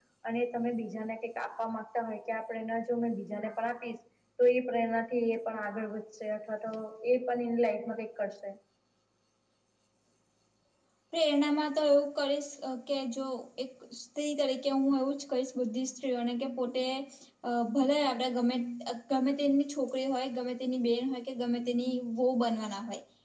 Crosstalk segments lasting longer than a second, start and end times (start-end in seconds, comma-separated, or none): none